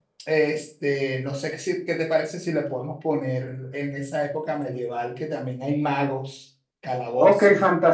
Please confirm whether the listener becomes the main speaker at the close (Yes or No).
Yes